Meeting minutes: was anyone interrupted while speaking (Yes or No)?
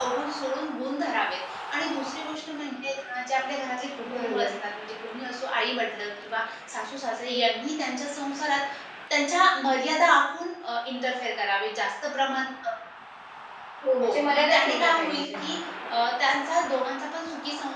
Yes